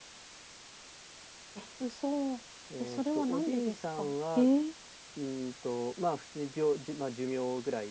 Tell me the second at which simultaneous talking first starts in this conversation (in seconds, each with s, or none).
2.7 s